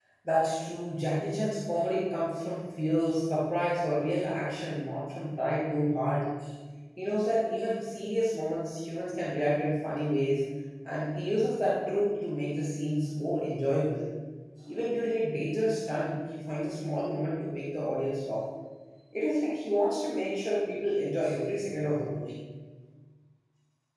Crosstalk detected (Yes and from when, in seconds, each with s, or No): No